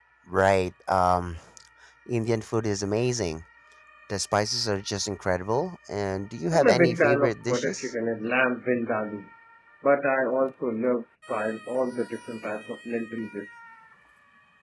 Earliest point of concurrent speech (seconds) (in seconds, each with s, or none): 6.5 s